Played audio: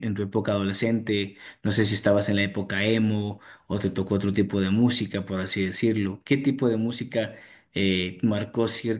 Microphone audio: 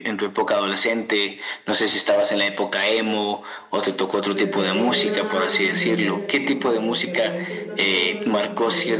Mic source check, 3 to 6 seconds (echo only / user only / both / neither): both